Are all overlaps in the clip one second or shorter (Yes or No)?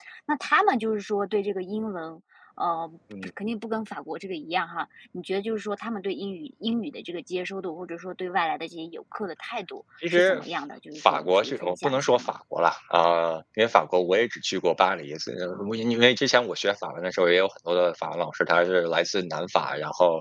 No